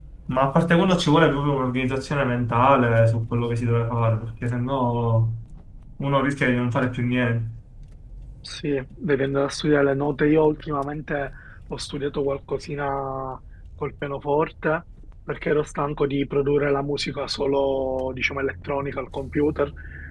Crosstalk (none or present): none